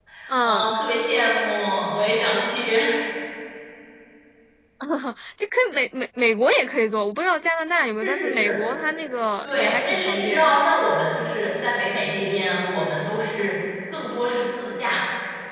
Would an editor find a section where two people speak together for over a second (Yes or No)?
Yes